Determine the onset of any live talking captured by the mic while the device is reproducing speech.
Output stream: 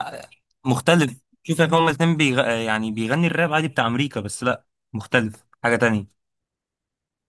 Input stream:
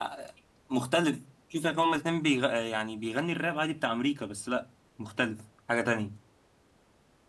none

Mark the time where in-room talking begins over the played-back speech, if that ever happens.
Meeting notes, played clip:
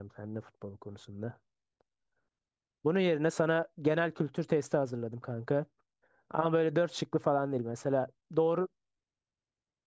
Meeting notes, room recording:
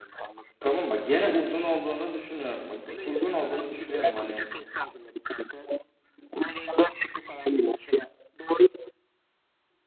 1 s

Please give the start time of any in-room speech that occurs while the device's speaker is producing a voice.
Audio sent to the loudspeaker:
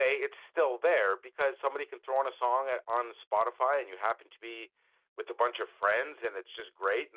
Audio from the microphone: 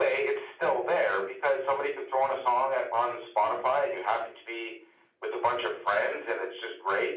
none

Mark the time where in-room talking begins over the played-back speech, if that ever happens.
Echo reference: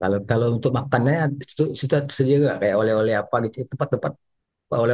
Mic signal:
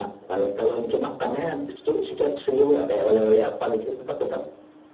none

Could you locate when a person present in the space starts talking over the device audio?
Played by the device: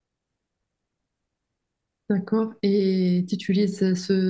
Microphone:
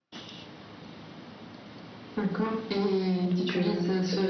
3 s

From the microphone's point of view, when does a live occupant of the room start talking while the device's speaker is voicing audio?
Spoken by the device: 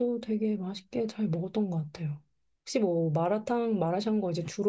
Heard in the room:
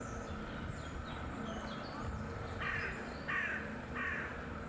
none

